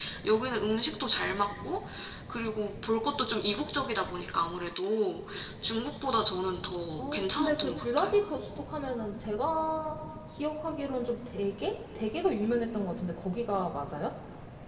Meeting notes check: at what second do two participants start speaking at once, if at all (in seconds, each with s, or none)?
7.0 s